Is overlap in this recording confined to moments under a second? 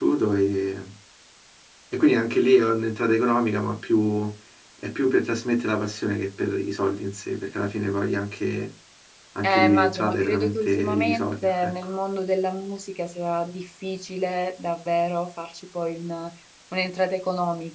No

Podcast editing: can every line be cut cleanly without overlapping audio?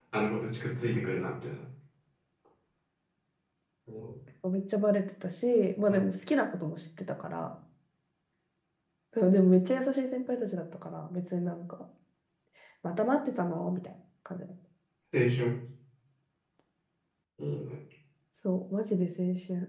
Yes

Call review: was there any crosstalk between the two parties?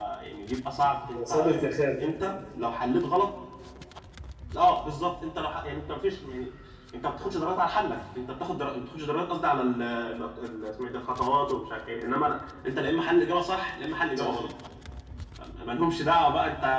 Yes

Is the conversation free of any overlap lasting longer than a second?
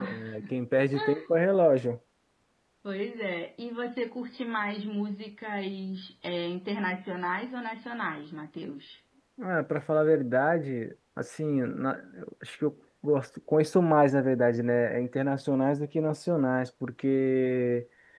Yes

